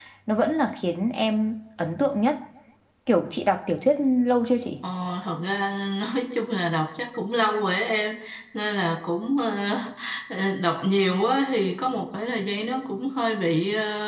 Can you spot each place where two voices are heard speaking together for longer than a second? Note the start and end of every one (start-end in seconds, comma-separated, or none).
none